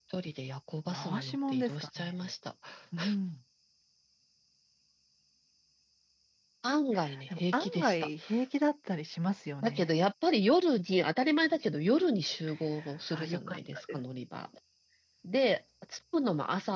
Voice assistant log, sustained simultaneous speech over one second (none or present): present